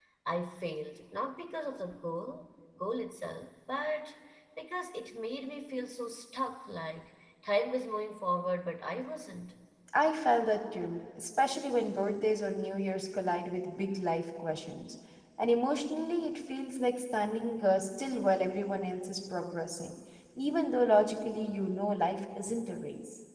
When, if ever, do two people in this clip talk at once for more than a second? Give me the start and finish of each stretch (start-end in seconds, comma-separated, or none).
none